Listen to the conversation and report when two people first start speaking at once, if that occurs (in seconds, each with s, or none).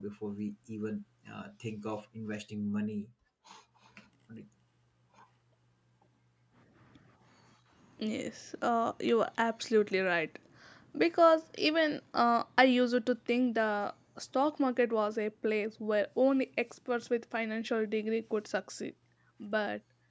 none